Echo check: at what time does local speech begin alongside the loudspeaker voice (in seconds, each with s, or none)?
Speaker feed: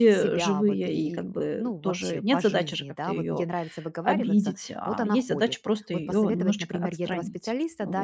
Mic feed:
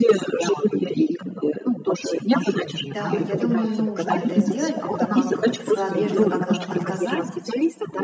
2.8 s